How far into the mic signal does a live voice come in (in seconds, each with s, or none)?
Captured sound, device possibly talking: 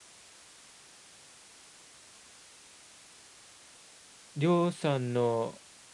4.3 s